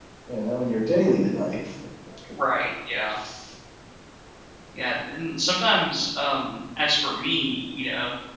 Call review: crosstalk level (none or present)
none